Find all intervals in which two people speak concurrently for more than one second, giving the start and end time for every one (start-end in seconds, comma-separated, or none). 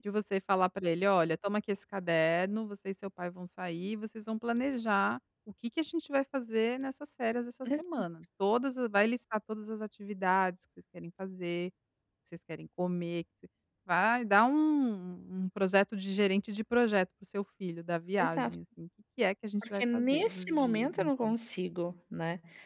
19.8-21.3